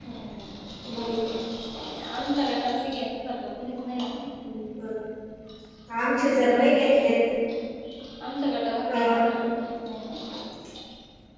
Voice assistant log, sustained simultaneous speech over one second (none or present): none